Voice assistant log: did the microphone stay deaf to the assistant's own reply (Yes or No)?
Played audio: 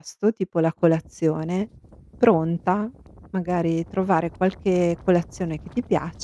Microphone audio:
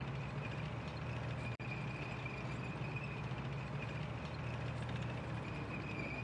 Yes